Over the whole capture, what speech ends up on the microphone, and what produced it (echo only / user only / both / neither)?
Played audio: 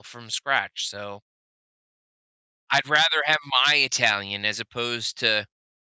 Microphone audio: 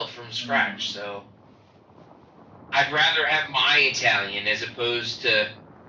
both